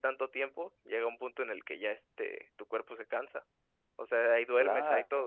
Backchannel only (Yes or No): No